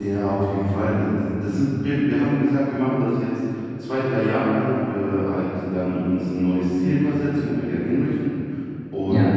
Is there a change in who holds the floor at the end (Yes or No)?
No